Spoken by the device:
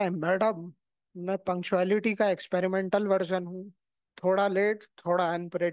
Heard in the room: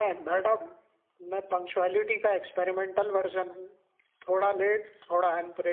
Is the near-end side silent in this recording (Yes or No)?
Yes